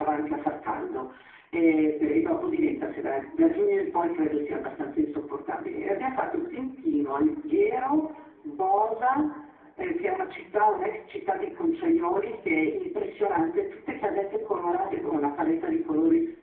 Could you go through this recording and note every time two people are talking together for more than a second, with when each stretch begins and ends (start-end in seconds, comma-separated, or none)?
none